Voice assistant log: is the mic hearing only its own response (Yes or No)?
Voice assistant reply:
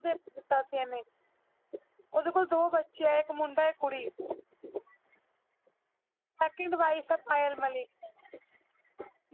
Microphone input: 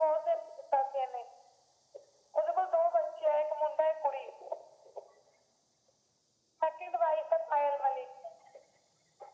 Yes